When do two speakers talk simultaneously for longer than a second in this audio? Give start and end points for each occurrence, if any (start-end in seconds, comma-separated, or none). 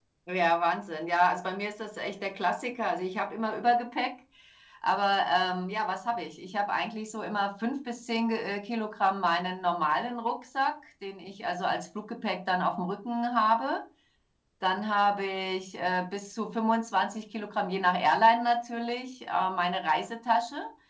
none